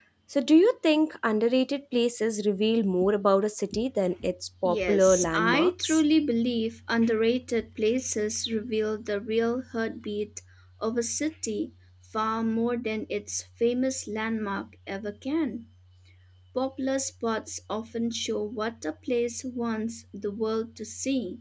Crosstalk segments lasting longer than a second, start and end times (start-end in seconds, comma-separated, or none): 4.6-6.0